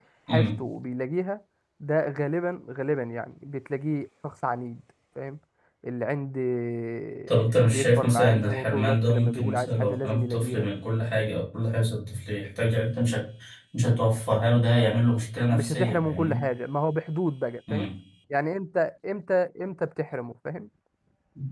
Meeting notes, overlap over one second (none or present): present